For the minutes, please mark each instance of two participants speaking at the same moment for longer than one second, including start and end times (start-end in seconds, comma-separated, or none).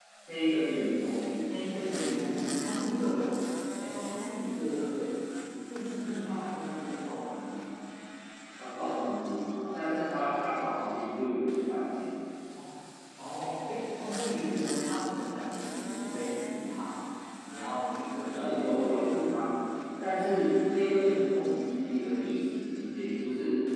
none